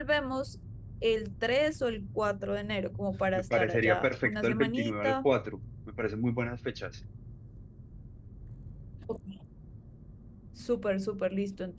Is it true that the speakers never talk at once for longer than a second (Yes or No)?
No